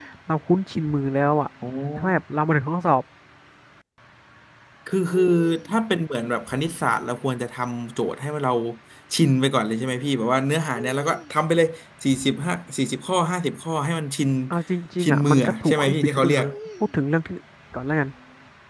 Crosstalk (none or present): present